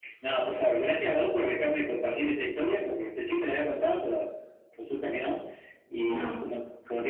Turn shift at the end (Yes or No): No